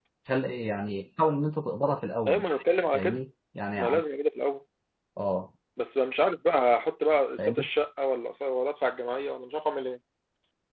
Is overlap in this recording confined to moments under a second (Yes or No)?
Yes